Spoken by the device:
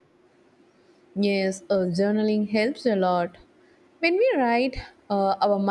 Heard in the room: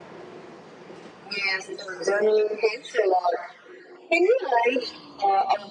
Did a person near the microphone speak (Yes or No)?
No